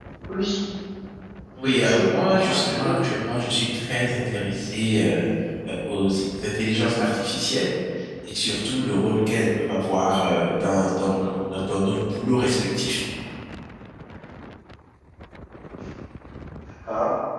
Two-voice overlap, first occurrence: 1.6 s

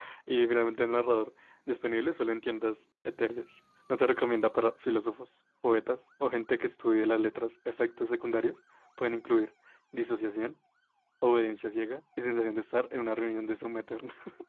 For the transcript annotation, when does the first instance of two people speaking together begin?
none

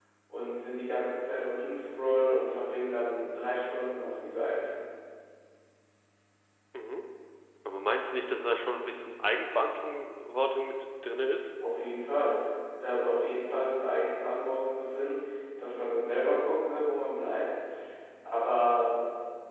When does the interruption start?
none

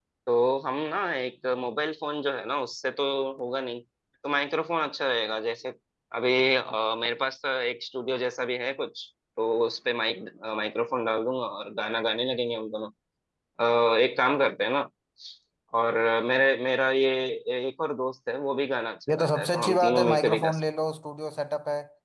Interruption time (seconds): 19.1 s

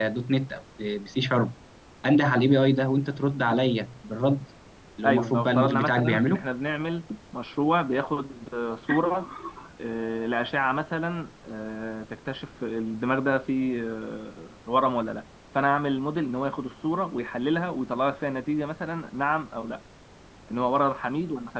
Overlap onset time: 5.0 s

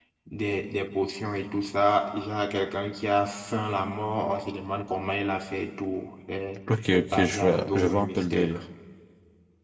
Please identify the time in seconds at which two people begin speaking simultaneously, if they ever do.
6.7 s

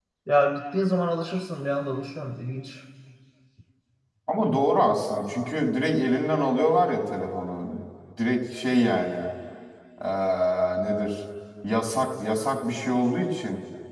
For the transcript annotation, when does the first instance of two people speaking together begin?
none

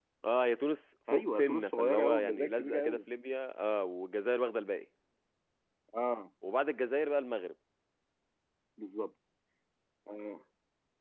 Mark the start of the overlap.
1.1 s

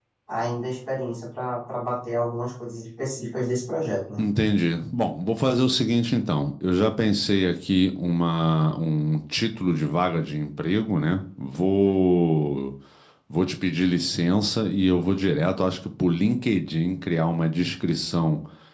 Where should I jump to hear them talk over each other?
none

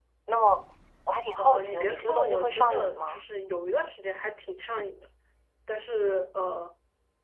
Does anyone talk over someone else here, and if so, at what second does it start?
1.4 s

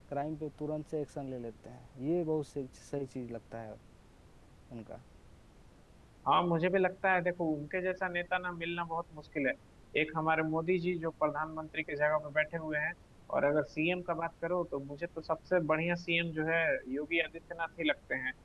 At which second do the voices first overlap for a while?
none

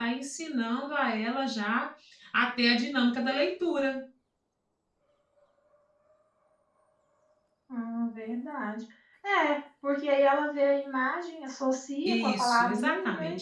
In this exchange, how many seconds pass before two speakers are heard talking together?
12.1 s

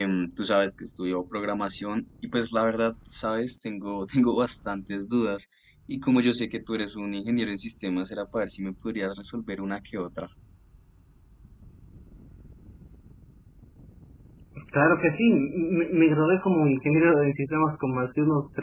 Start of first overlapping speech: none

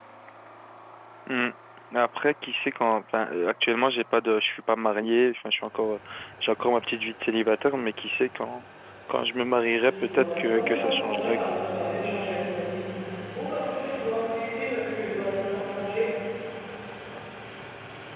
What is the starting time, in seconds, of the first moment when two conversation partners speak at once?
9.8 s

